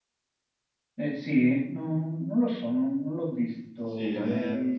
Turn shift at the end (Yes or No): Yes